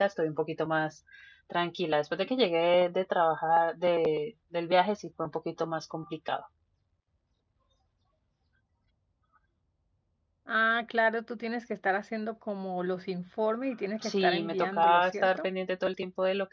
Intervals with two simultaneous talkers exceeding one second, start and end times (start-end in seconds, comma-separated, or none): 14.0-15.5